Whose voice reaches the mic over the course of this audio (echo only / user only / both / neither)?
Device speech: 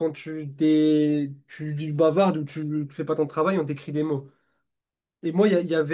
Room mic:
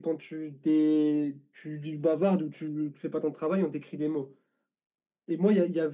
echo only